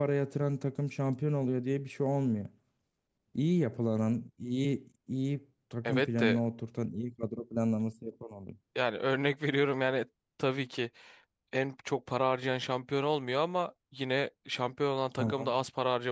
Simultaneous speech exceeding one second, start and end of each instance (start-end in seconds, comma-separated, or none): none